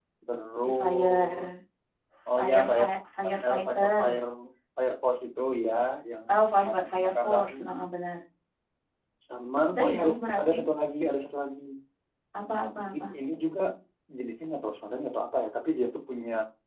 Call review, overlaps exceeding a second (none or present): present